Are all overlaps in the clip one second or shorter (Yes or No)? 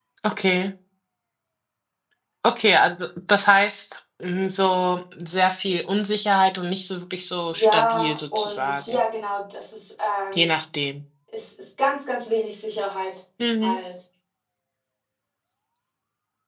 No